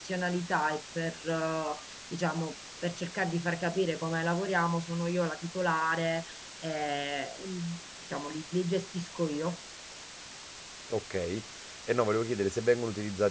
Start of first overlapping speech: none

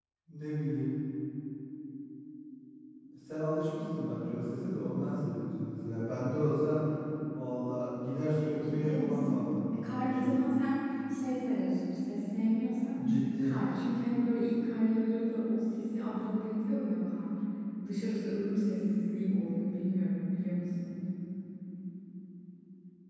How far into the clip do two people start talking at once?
8.6 s

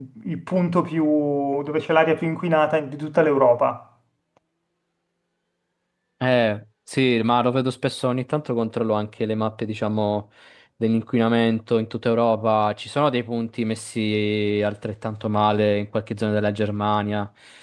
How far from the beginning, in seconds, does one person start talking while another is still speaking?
none

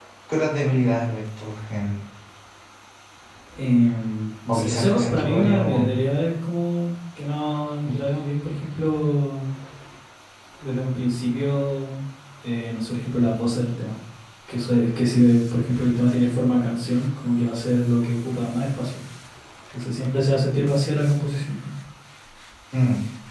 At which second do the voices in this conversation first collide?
4.5 s

